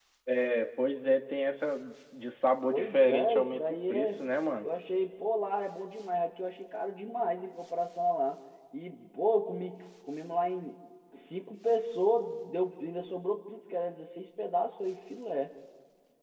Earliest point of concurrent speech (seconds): 2.7 s

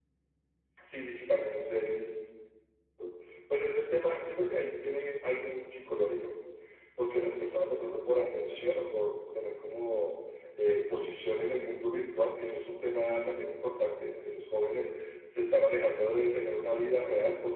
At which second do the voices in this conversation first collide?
none

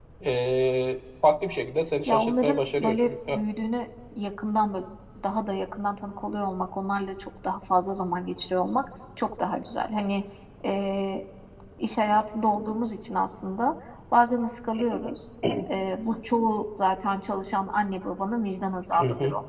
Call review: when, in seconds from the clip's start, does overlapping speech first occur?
2.1 s

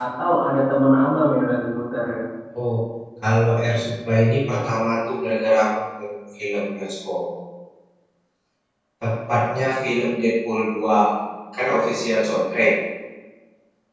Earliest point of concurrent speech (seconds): none

